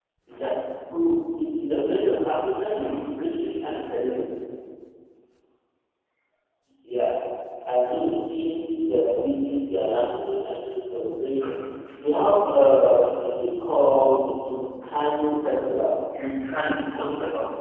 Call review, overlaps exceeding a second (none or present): none